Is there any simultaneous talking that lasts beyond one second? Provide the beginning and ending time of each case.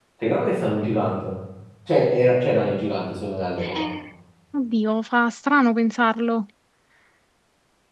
none

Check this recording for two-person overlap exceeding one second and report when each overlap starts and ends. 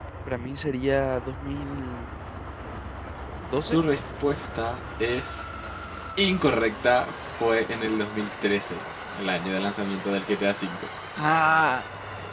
none

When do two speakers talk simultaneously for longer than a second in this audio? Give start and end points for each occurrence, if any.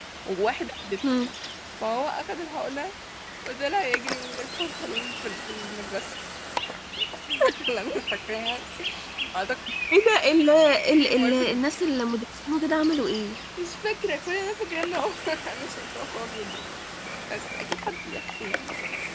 none

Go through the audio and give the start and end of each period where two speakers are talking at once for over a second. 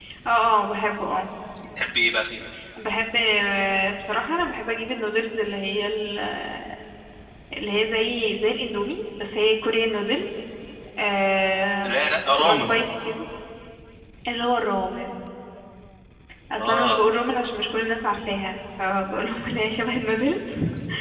none

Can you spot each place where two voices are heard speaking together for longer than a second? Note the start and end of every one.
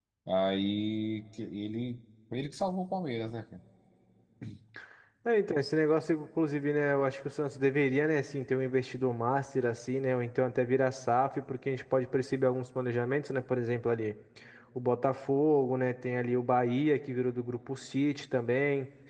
none

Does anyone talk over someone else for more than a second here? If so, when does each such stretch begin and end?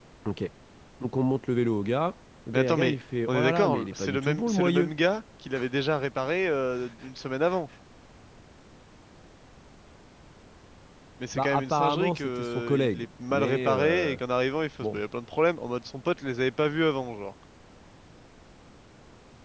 2.5-4.9, 11.3-14.2

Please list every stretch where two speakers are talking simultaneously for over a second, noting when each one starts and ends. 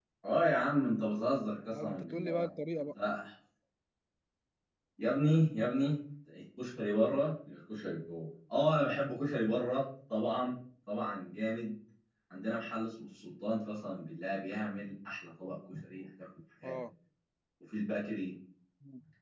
1.6-2.9

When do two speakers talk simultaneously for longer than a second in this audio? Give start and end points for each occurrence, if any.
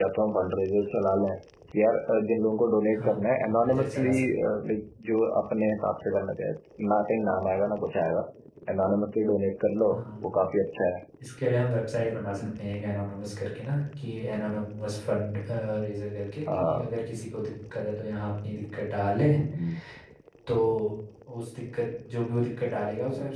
2.9-4.3

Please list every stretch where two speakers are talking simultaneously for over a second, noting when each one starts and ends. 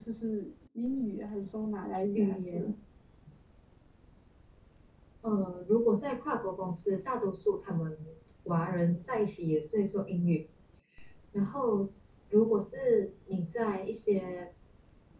none

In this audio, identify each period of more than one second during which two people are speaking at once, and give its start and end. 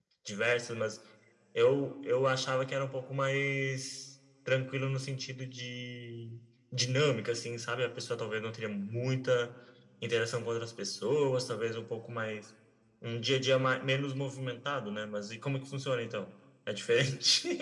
none

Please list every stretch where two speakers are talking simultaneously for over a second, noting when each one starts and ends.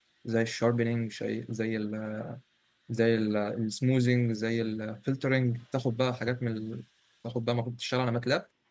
none

